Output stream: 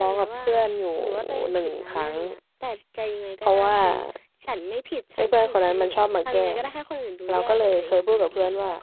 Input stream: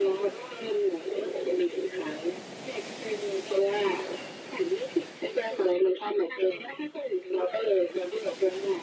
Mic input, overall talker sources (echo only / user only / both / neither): echo only